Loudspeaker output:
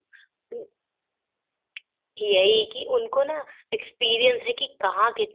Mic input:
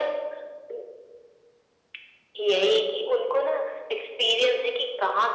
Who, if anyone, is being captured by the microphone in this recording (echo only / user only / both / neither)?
echo only